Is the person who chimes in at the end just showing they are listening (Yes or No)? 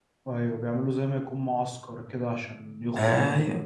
No